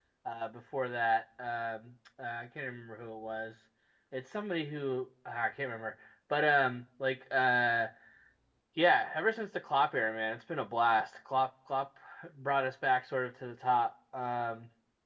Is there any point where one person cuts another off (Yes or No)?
No